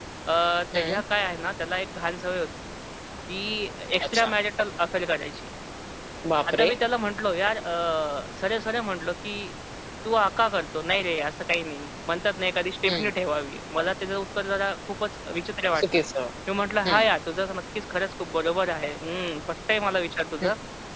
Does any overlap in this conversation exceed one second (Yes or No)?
No